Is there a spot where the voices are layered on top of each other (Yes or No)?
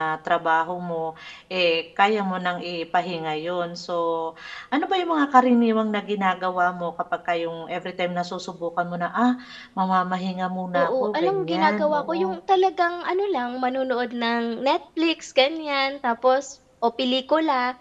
Yes